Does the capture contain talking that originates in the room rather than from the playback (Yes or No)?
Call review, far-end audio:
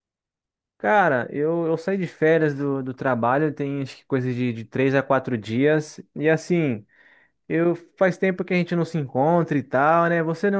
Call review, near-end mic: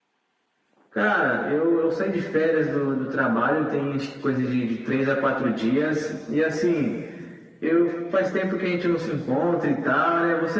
No